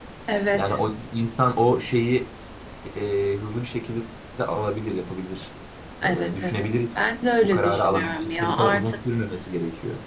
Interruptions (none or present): present